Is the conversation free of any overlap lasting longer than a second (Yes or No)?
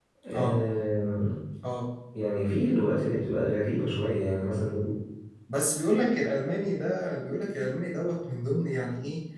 Yes